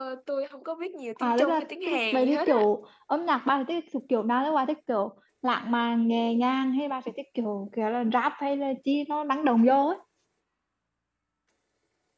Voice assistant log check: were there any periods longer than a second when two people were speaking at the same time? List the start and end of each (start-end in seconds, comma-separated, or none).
1.2-2.6